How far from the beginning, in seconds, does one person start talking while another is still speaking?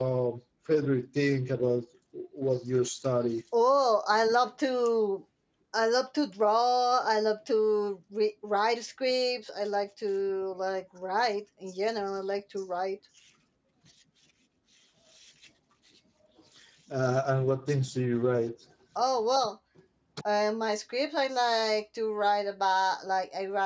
none

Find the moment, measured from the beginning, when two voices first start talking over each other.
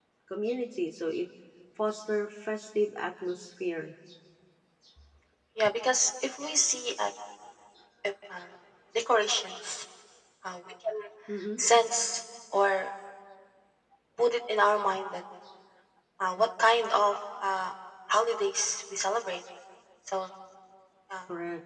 none

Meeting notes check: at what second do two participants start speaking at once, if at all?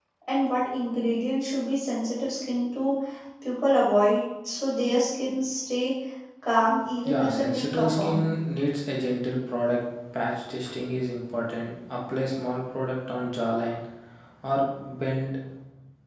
7 s

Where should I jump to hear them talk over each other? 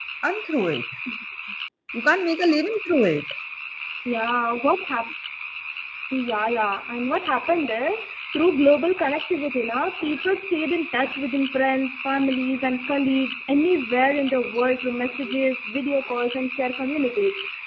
none

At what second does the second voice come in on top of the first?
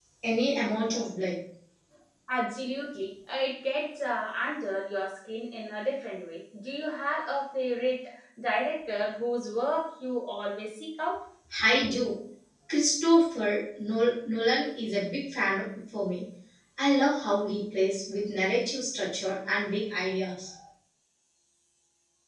none

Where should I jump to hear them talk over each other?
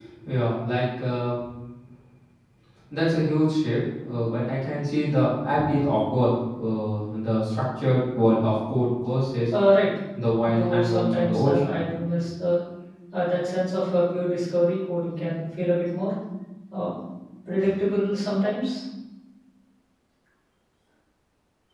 10 s

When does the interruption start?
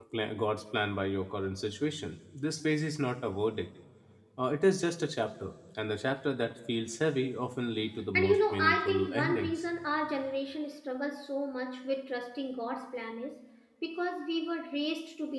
8 s

